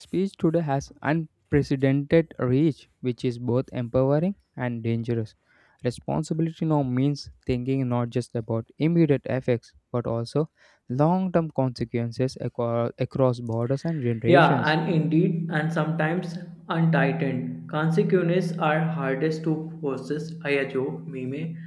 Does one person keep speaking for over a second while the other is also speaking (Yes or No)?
No